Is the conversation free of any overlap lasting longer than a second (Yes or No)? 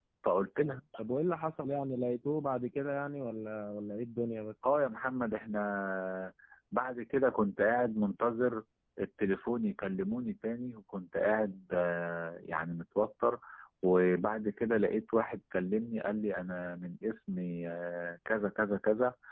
Yes